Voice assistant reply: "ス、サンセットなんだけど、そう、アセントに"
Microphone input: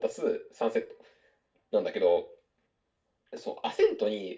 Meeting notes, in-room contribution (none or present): none